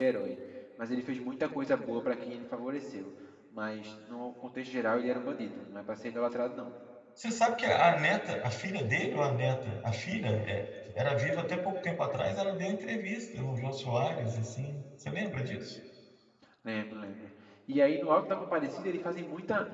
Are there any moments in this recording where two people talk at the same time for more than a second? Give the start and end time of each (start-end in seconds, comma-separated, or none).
none